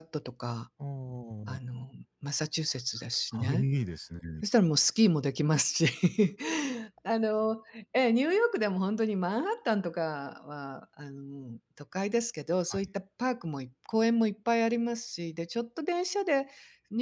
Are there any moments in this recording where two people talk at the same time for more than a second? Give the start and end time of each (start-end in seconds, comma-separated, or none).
none